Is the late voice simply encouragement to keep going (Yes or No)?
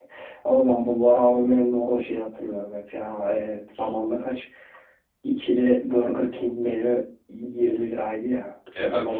Yes